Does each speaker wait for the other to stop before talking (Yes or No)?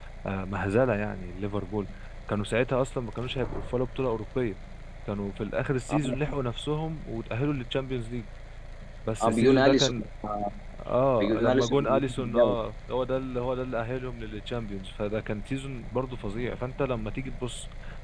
No